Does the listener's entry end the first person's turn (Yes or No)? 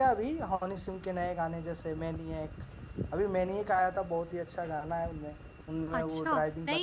Yes